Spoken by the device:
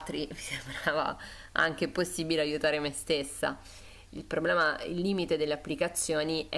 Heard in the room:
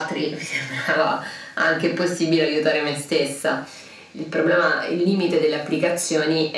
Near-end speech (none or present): none